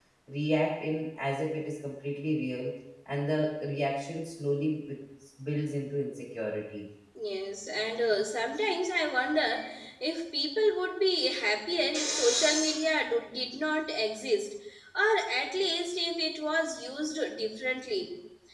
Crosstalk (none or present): none